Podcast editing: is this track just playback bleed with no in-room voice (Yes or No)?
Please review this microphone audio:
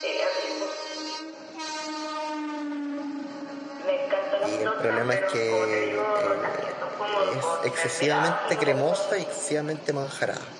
No